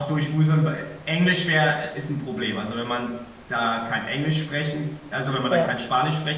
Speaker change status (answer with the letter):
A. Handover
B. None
B